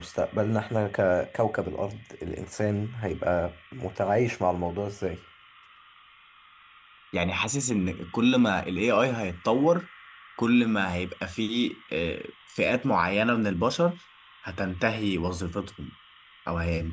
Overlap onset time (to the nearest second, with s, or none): none